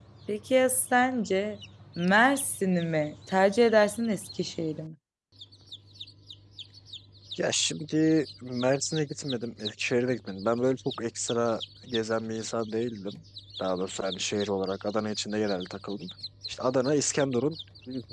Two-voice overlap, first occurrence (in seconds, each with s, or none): none